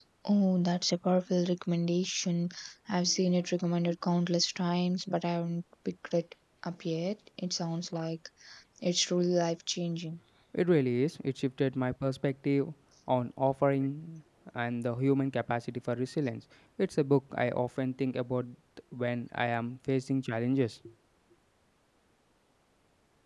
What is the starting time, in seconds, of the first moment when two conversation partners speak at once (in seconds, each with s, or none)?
none